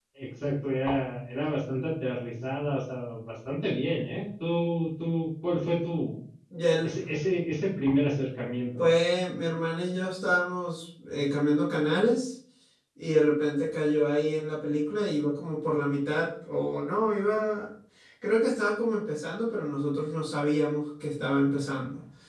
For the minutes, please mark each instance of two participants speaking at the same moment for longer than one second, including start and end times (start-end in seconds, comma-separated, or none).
none